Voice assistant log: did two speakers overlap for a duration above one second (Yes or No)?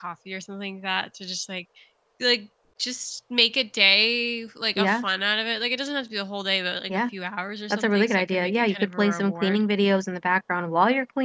Yes